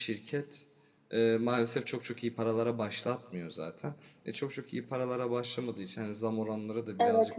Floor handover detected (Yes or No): No